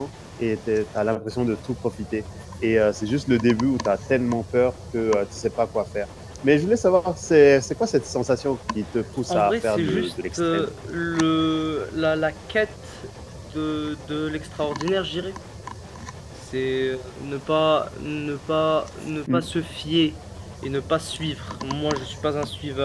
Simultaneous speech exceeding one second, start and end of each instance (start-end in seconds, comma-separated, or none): 9.3-10.7